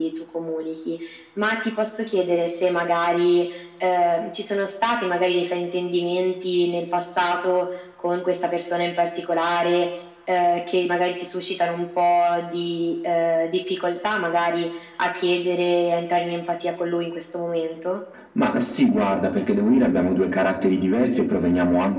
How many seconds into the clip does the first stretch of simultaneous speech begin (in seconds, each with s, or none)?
none